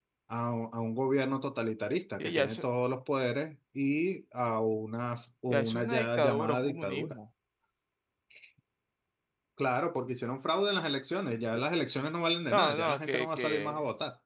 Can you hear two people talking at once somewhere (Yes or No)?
Yes